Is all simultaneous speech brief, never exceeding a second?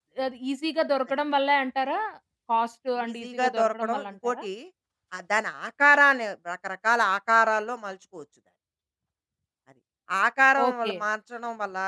No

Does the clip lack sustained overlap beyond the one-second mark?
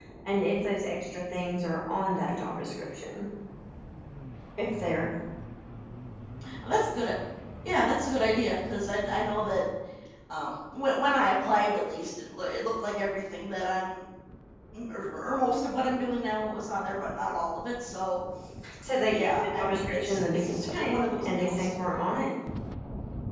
No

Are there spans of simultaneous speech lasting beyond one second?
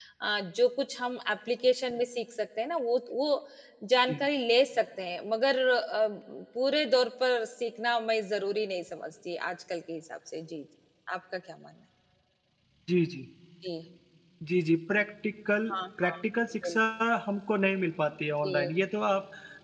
No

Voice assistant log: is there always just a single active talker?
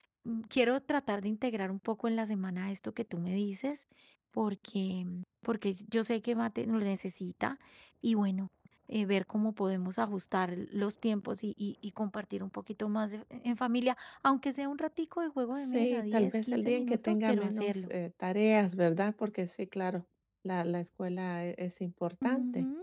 No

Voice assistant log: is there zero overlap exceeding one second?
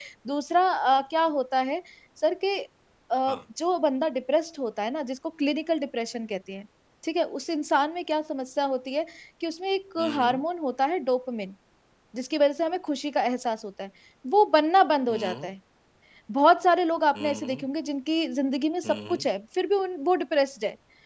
Yes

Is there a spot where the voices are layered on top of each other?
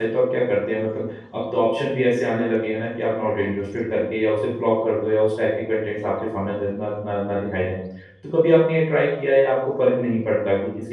No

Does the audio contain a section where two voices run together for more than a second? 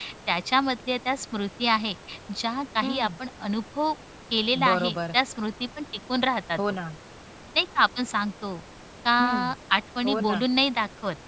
No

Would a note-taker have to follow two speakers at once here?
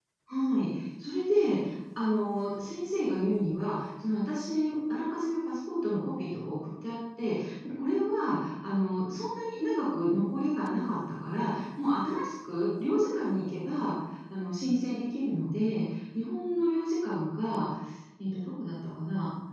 No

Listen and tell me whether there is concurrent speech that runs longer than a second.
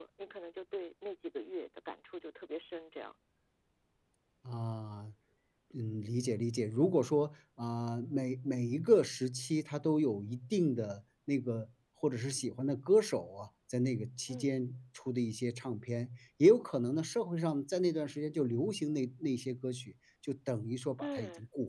No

